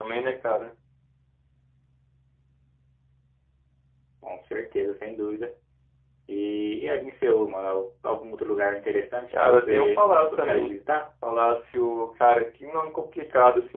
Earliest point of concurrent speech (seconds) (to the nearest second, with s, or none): 9 s